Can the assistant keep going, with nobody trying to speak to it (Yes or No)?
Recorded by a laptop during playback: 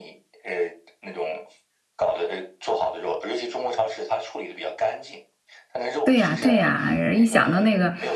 No